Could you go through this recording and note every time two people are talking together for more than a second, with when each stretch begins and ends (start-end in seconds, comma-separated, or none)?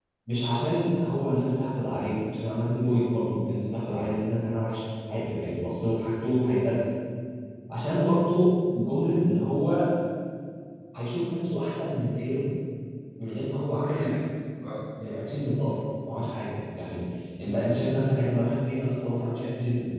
none